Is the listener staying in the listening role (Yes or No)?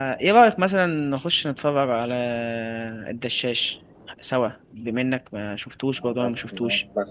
No